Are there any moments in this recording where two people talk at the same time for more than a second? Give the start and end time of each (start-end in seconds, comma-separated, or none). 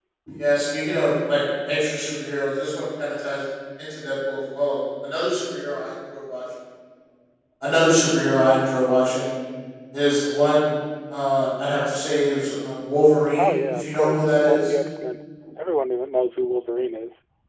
13.3-14.7